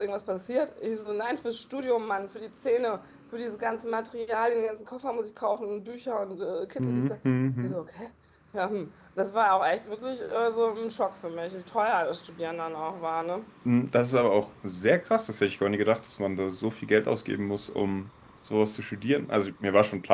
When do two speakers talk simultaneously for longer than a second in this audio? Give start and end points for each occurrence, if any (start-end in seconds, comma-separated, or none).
none